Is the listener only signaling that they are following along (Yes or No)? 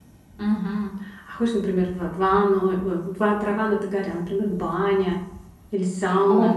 No